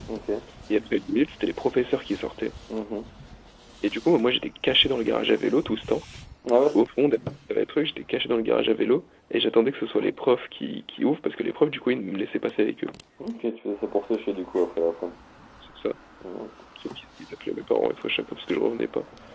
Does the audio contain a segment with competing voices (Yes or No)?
No